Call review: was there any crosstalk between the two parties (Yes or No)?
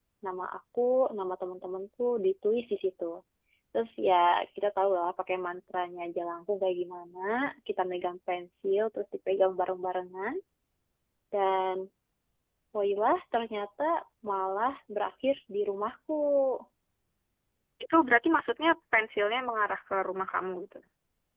No